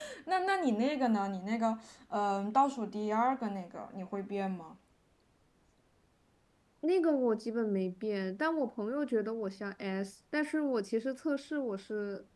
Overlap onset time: none

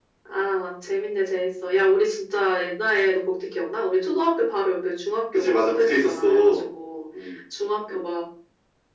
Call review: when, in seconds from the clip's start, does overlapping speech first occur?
5 s

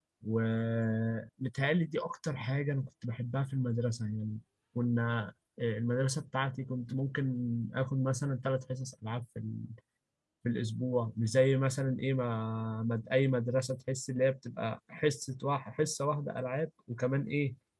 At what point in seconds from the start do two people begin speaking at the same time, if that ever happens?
none

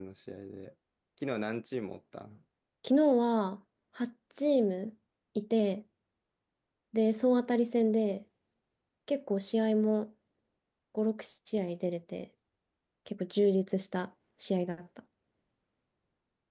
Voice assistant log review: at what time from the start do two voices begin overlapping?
none

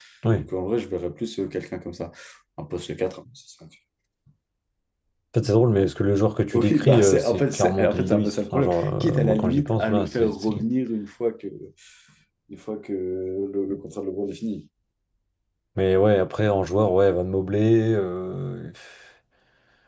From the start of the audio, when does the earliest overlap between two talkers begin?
7 s

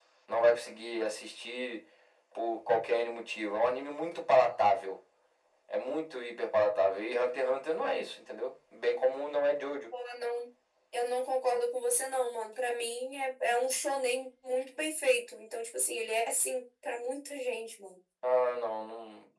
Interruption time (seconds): none

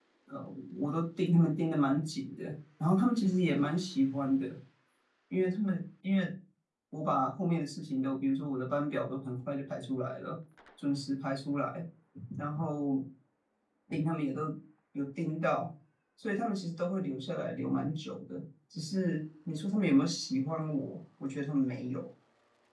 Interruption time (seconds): none

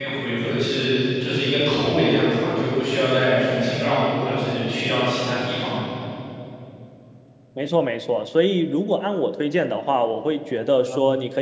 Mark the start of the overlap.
none

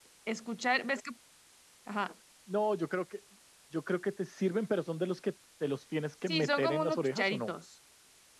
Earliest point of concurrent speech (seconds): 6 s

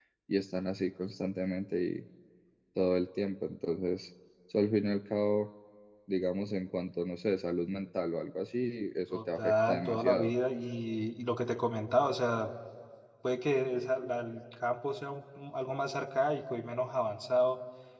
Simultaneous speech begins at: 9 s

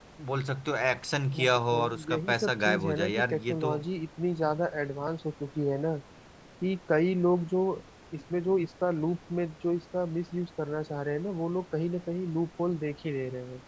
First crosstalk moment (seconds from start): 1 s

